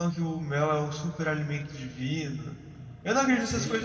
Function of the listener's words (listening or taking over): listening